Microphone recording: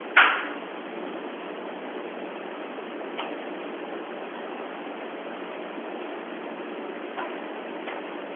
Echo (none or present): none